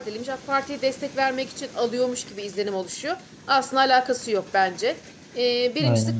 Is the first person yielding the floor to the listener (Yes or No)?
No